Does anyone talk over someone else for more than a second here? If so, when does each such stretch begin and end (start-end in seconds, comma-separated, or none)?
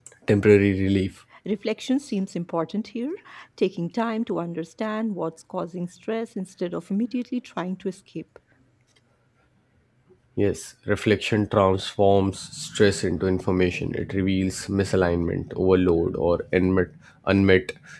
none